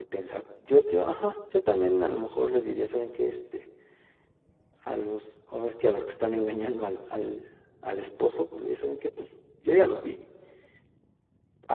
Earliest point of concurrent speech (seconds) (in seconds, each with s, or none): none